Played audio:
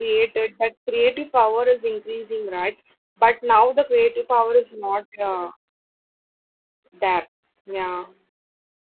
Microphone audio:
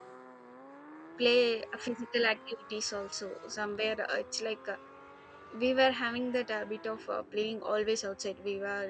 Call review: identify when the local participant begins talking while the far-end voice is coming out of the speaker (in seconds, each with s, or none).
1.2 s